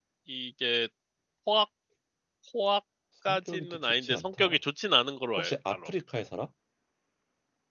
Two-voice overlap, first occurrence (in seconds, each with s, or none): 3.3 s